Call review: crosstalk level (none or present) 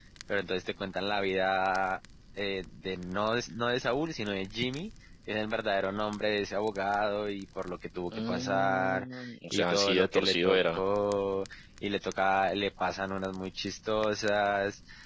present